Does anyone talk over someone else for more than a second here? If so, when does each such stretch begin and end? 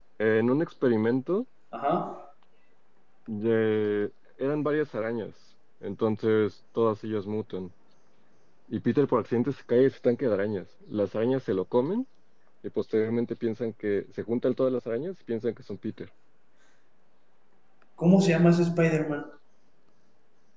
none

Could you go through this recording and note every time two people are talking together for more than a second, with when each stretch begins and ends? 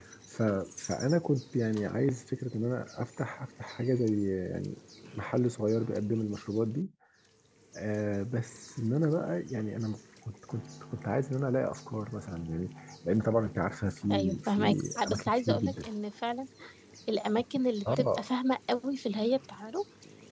14.1-15.9

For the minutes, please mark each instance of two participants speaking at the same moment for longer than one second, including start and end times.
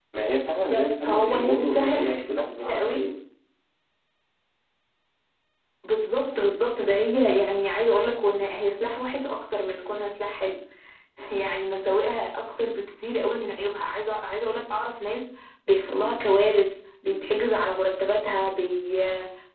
0.7-3.0

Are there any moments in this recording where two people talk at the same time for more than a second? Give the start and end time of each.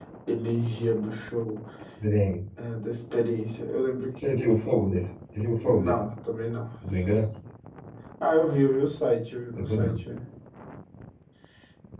none

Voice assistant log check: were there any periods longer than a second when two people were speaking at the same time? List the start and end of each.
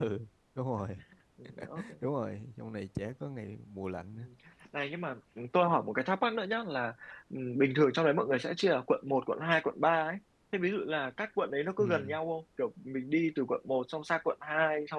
none

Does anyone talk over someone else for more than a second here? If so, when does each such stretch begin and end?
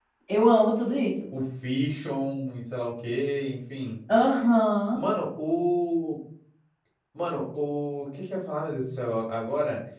none

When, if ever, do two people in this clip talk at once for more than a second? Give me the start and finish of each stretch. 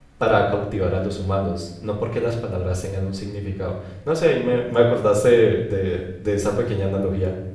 none

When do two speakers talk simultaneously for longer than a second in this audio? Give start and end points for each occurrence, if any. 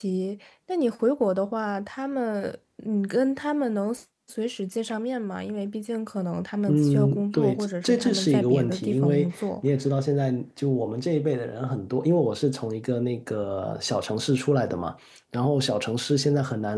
6.7-9.5

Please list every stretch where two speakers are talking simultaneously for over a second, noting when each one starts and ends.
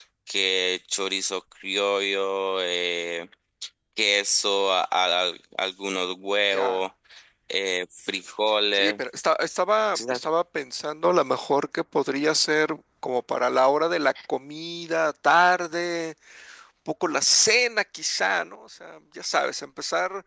none

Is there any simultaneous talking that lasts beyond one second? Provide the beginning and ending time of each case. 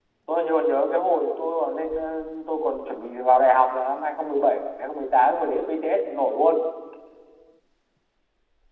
none

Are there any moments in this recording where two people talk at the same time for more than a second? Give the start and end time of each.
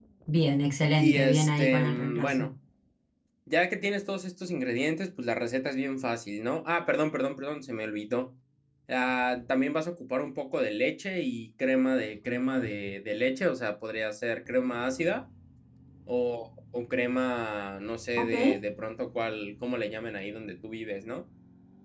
1.0-2.5

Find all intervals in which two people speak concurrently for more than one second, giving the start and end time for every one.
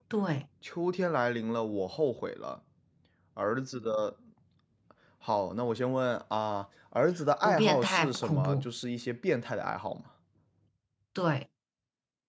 7.4-8.7

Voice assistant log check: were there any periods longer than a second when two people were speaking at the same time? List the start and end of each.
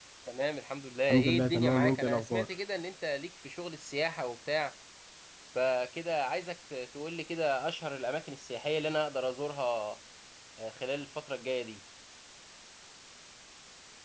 1.1-2.5

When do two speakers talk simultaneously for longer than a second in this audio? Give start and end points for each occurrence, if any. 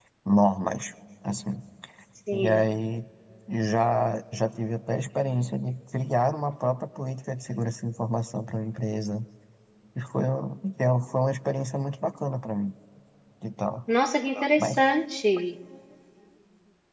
none

